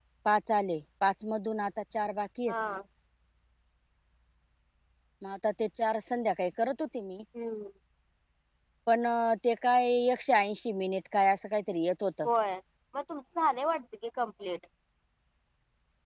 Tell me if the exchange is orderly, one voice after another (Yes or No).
Yes